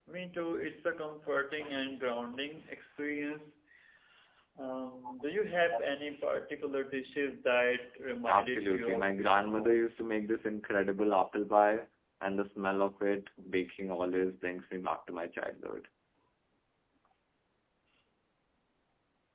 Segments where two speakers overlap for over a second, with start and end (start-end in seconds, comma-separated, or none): 8.3-9.9